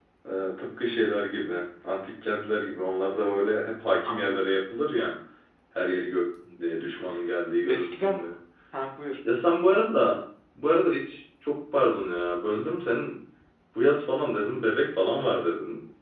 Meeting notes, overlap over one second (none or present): none